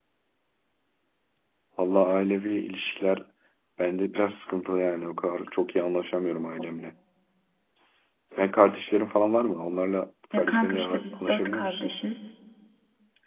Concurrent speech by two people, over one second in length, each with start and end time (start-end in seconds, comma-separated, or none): 10.3-11.8